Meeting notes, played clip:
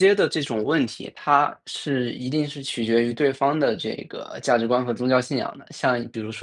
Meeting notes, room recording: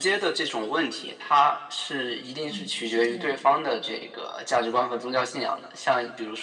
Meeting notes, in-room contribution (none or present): present